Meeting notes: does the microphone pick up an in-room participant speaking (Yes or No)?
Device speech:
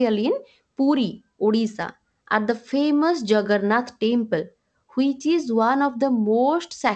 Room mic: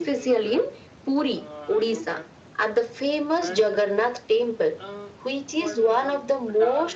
Yes